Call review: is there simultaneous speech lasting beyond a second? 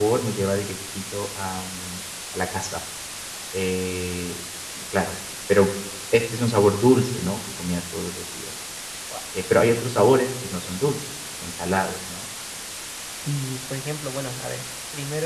No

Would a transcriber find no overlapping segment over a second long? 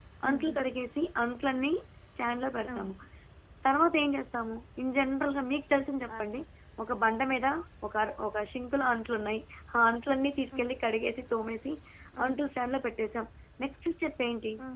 Yes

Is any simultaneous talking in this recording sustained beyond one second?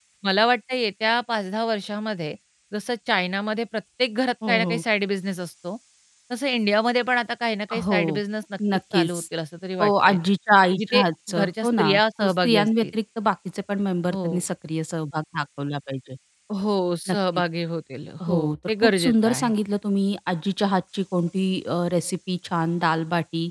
Yes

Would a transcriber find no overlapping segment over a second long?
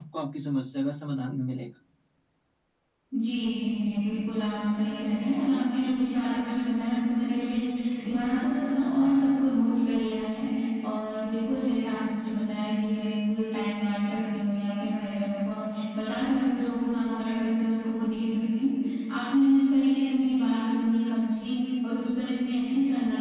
Yes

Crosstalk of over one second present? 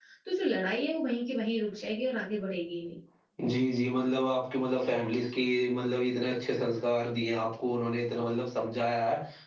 No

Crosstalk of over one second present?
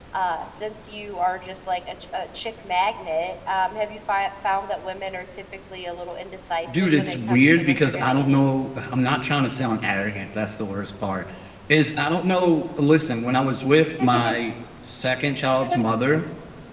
Yes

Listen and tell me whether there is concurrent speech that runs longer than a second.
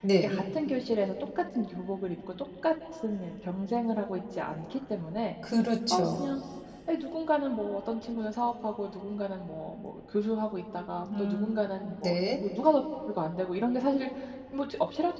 No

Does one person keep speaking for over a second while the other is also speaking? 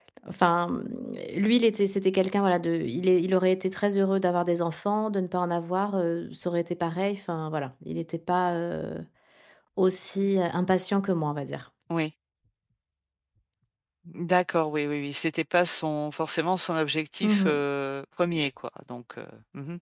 No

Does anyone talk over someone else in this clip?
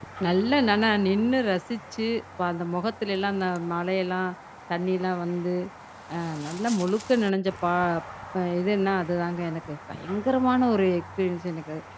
No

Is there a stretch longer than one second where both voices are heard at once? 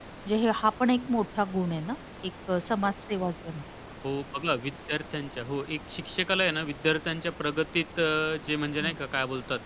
No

